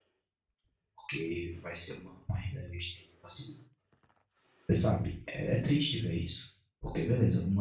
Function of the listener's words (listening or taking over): listening